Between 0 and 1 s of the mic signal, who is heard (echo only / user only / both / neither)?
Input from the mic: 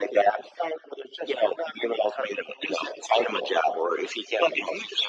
echo only